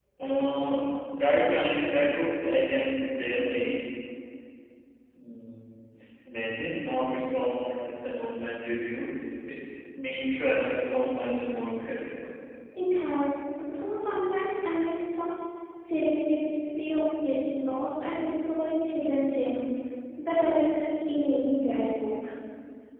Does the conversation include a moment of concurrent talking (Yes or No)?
No